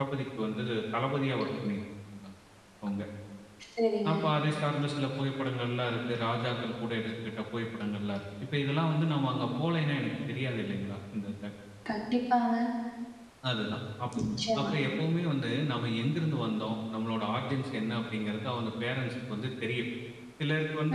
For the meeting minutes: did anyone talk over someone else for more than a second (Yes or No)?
No